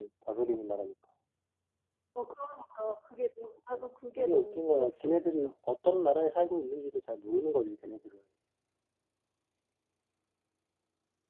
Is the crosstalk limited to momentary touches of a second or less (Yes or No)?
No